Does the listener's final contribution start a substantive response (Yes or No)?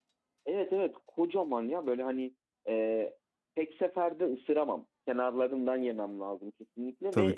Yes